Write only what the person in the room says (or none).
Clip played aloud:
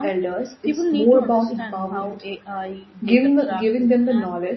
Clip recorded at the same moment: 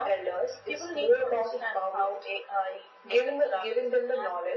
none